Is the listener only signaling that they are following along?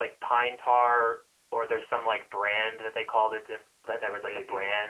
Yes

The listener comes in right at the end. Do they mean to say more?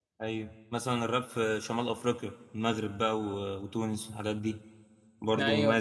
Yes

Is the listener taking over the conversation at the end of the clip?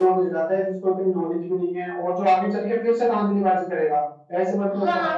Yes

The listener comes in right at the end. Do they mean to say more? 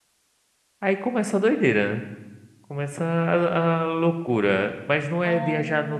No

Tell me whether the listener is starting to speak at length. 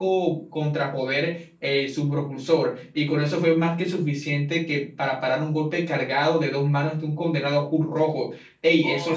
Yes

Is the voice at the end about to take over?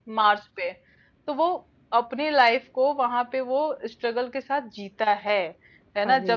No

